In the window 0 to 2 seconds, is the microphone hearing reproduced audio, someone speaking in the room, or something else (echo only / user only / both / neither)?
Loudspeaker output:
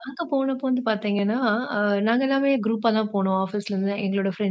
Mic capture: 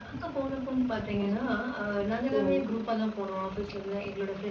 echo only